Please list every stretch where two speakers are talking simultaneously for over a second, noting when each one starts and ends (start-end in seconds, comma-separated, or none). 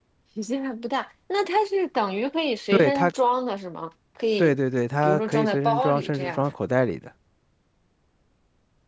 5.0-6.4